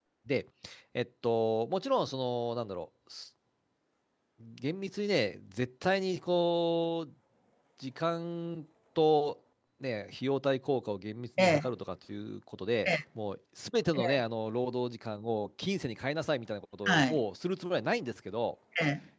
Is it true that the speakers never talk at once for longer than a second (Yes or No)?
Yes